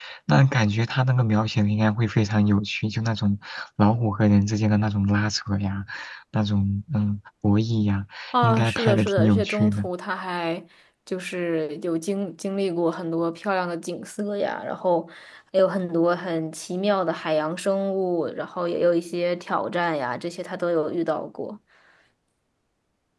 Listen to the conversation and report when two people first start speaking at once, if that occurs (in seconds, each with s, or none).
8.3 s